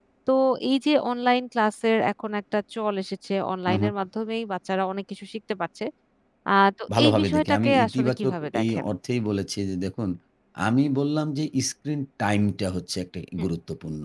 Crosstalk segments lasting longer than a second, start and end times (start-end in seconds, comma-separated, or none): 7.0-8.9